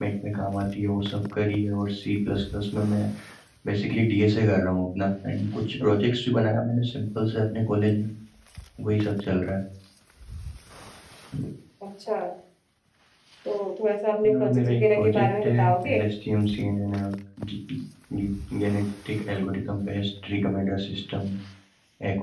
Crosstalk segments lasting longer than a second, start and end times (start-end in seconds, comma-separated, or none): 14.3-16.0